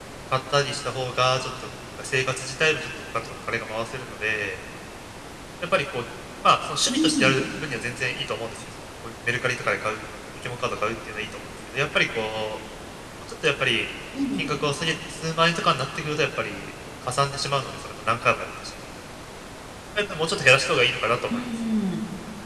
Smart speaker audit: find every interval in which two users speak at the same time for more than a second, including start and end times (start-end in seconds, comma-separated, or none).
none